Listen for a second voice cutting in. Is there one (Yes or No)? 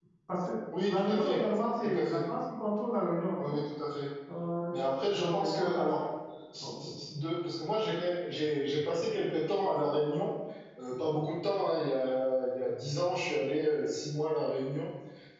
Yes